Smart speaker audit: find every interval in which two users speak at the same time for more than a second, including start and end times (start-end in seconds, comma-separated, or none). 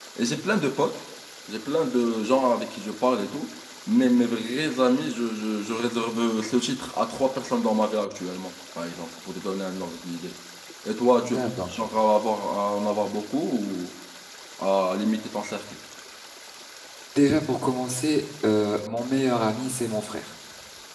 none